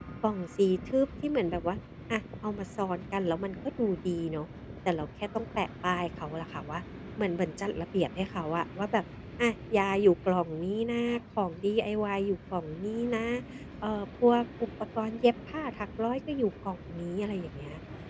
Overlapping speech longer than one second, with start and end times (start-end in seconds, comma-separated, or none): none